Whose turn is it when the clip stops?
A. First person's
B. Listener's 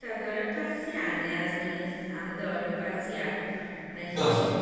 A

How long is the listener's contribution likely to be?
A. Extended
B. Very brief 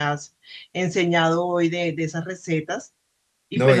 A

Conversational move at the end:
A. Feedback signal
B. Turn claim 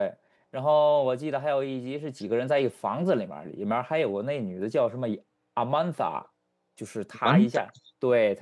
A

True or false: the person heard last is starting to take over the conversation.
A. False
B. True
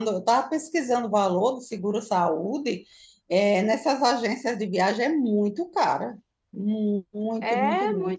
B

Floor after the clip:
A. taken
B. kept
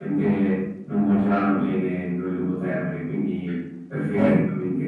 B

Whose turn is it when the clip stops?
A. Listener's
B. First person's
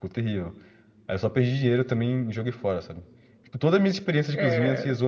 B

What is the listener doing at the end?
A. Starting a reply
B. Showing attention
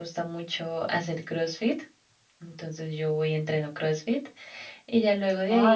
A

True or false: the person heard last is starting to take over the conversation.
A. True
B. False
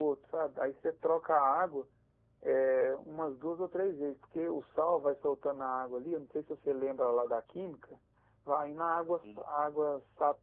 B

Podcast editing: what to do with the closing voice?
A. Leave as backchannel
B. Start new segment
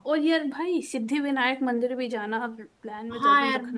B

